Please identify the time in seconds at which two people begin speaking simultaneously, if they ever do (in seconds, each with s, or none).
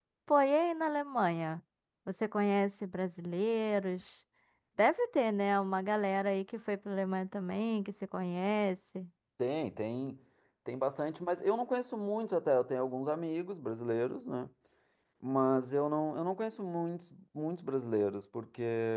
none